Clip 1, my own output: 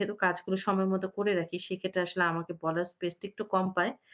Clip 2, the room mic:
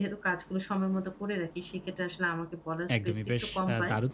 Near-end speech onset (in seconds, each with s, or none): 3.0 s